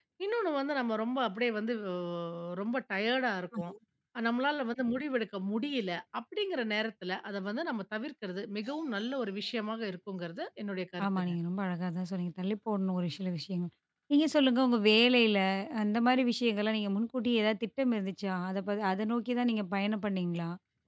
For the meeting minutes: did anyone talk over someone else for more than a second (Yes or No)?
No